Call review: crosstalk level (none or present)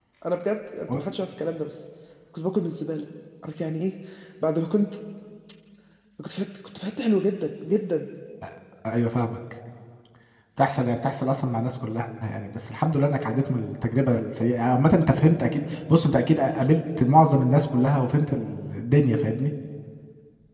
none